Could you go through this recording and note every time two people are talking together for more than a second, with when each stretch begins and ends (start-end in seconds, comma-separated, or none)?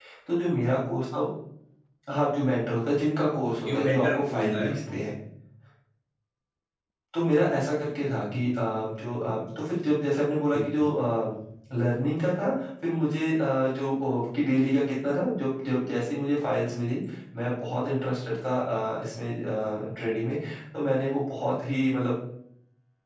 3.6-5.0